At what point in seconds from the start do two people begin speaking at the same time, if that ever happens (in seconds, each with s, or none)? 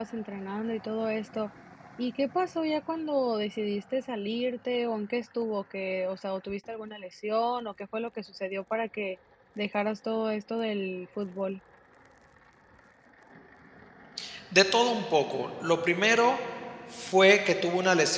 none